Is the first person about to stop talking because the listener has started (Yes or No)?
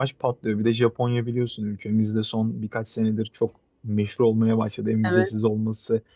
No